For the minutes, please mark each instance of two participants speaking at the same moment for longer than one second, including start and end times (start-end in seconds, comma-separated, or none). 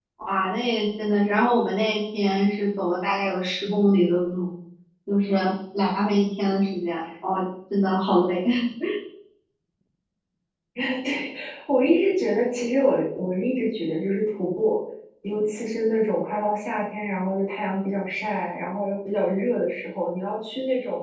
none